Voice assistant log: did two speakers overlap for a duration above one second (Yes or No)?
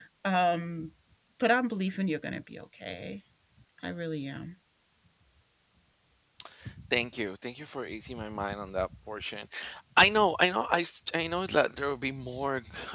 No